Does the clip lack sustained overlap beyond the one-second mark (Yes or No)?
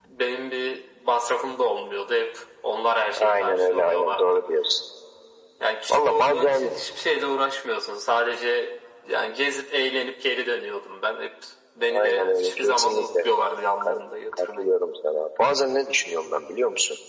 No